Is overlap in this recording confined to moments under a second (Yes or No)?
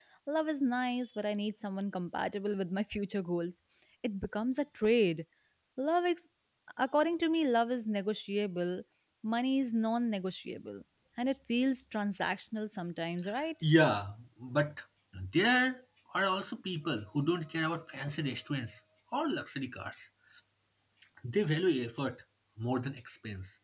Yes